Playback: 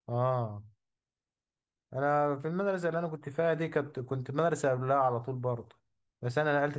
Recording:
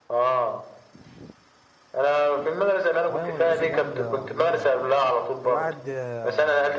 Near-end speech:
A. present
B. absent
A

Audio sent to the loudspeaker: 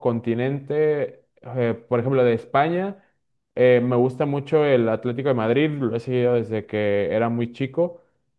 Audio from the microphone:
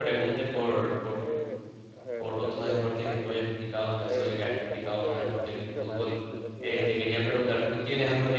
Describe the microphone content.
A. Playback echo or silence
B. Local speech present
B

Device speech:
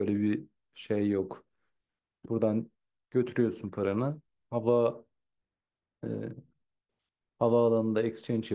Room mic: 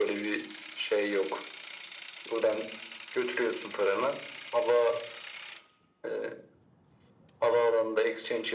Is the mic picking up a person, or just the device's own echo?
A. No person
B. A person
A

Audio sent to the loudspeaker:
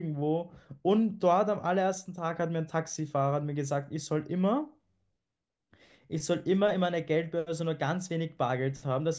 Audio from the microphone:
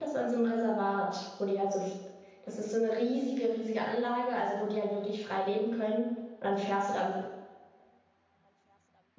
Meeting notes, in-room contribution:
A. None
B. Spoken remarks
B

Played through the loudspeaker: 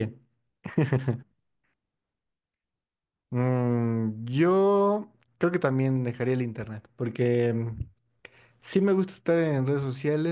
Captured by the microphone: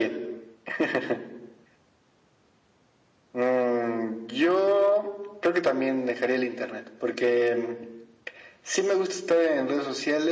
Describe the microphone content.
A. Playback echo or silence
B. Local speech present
A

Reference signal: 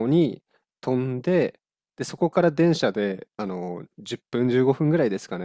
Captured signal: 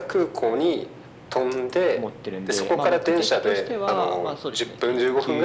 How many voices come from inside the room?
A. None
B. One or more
B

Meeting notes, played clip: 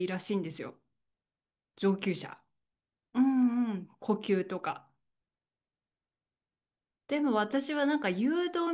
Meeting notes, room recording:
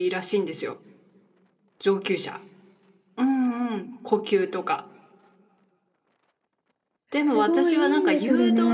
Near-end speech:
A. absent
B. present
B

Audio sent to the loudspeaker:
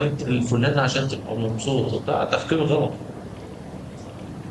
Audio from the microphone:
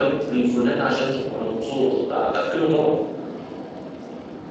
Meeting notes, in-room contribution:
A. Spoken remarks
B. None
B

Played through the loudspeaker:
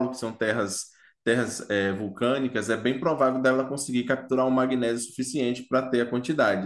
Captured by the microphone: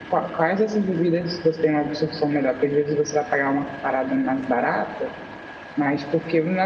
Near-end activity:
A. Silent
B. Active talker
B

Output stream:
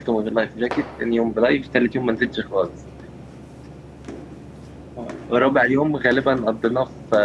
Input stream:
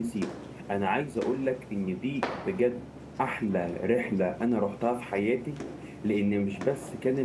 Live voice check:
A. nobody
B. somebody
B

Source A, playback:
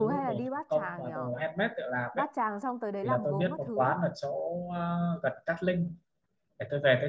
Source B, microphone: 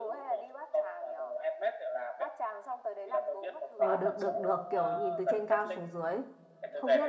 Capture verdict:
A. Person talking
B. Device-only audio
A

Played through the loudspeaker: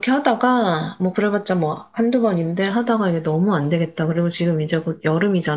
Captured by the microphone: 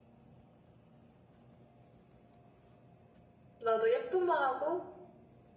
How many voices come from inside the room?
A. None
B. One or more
B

